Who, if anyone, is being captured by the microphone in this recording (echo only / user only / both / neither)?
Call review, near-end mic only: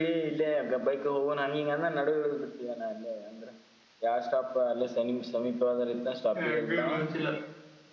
both